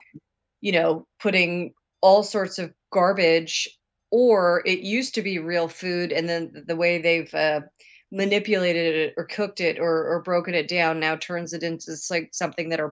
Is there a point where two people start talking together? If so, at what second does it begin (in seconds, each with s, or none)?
none